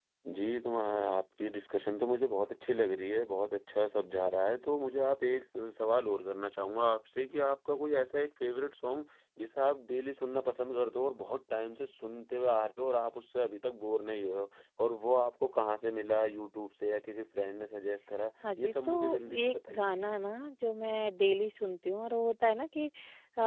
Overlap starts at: 18.4 s

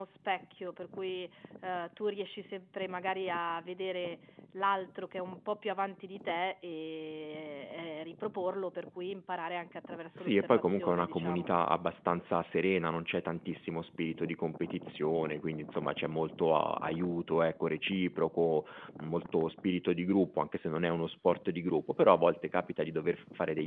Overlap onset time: 10.2 s

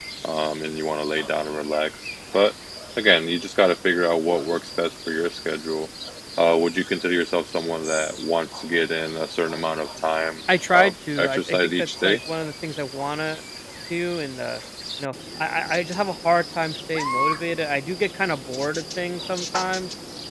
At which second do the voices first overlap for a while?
10.5 s

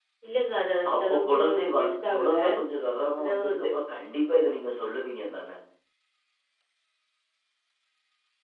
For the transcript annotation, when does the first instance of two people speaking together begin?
1.0 s

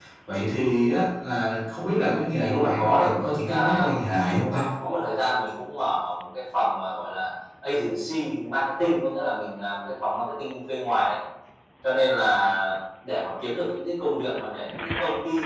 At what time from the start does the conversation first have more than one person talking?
2.4 s

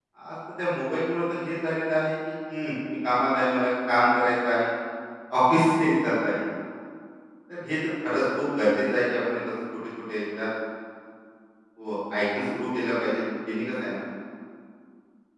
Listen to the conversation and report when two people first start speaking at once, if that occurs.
none

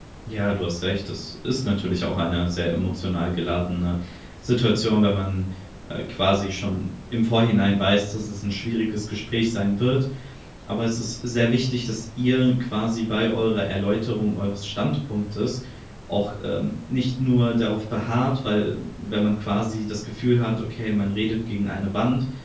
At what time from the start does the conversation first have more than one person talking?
none

